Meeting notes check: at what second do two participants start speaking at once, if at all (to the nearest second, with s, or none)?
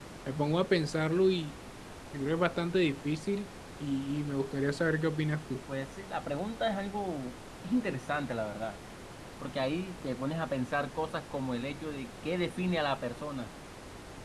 none